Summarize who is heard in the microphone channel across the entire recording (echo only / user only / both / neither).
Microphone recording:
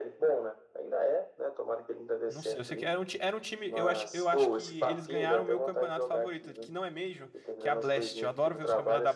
both